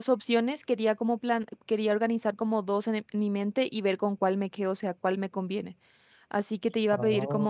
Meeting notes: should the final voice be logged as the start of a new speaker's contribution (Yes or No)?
No